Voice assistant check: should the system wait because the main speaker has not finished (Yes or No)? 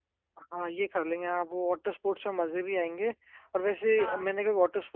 Yes